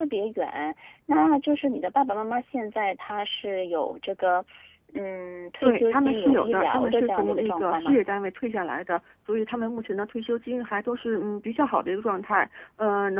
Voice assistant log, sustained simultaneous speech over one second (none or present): present